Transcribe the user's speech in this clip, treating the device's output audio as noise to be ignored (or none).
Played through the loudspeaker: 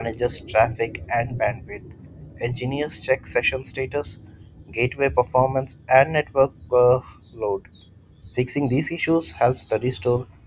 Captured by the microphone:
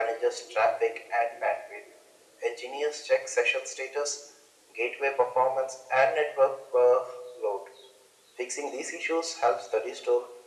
none